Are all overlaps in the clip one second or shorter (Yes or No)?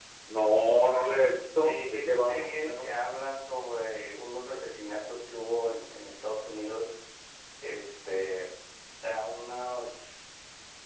No